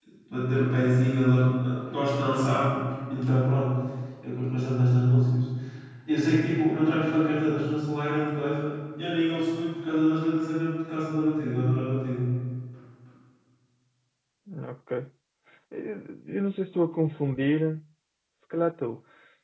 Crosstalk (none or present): none